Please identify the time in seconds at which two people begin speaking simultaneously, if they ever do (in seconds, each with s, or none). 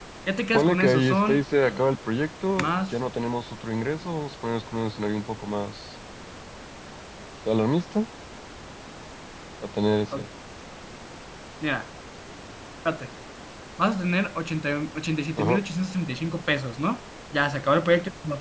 0.5 s